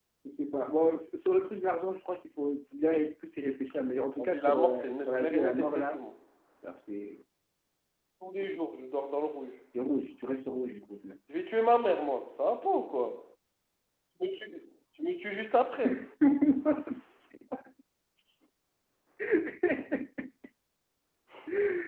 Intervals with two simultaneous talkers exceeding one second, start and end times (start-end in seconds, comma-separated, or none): 4.2-6.0